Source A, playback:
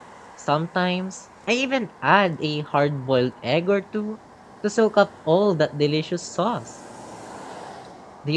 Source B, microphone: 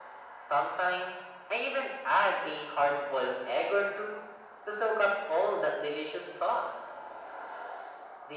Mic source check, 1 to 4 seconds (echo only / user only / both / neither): echo only